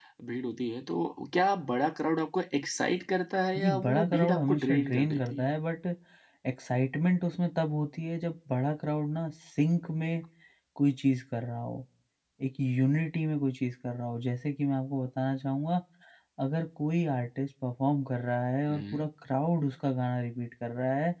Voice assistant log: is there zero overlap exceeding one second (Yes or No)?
No